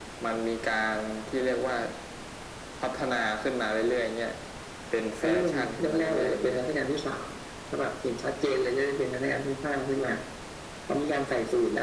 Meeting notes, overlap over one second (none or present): present